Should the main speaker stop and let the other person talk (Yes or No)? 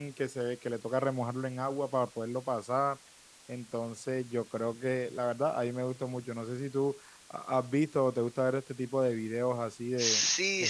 Yes